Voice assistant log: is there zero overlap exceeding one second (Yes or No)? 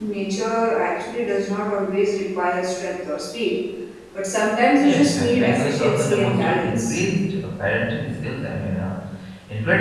No